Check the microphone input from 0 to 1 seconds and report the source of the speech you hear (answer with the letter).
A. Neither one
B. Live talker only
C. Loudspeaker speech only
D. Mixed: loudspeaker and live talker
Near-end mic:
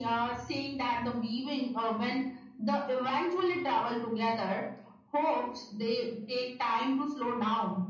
C